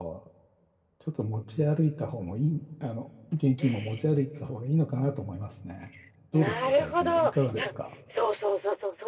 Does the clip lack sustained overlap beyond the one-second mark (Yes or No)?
No